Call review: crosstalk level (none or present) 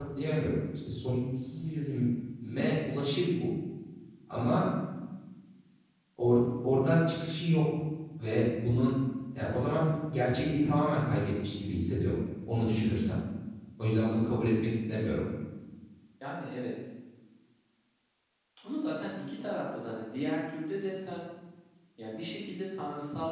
none